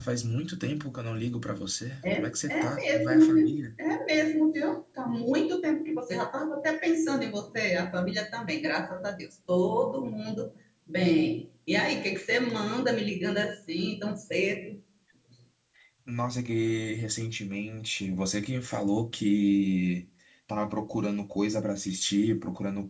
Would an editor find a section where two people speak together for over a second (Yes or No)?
Yes